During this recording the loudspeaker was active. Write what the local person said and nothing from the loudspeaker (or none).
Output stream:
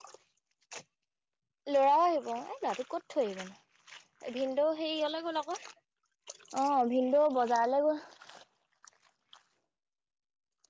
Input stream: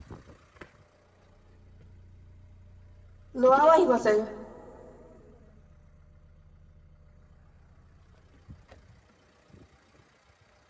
লোৱাও আহি বচাগে